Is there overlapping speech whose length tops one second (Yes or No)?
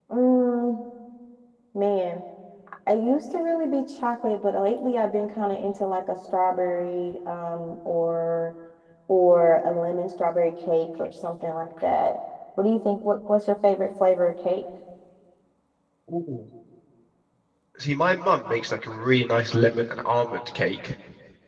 No